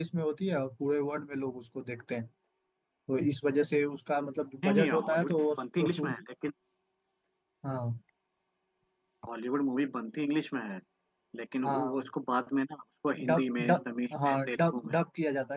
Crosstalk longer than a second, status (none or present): present